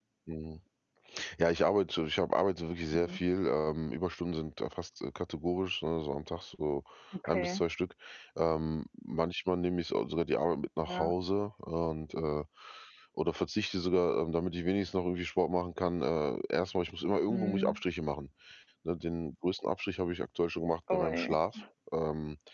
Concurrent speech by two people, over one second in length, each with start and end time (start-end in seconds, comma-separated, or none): none